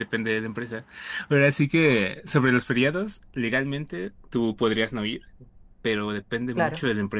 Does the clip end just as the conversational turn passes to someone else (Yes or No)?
No